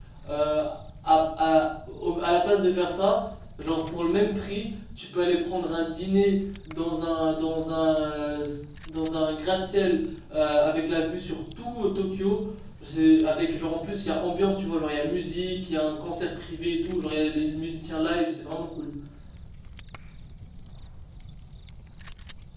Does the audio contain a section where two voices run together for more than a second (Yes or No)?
No